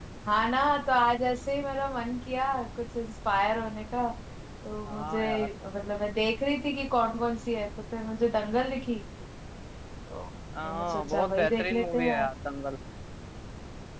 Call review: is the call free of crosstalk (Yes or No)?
No